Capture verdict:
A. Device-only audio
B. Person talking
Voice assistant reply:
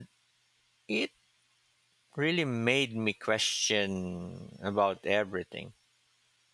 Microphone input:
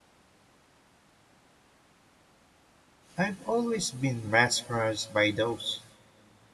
B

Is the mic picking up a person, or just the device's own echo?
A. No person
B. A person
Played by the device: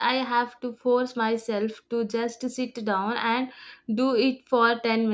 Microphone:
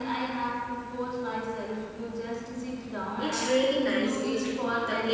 B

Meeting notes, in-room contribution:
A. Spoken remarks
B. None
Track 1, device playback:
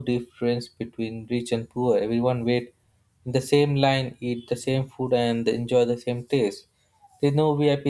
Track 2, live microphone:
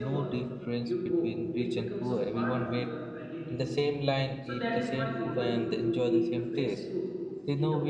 A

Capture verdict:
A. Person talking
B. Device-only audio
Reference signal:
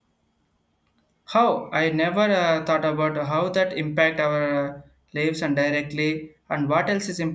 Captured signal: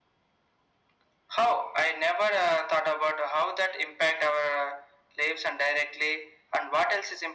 B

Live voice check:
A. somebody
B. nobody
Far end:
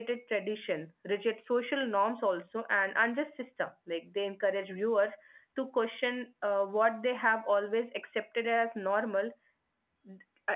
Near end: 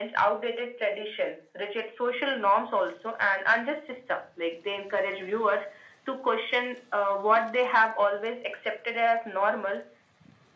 B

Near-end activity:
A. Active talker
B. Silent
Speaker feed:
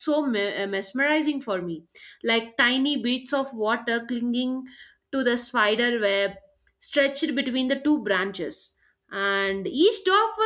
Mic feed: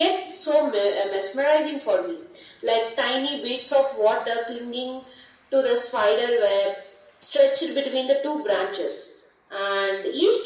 B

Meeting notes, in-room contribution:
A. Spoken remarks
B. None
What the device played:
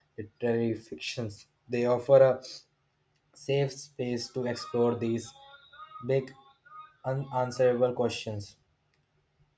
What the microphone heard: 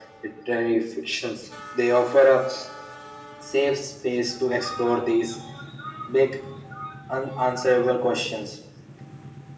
B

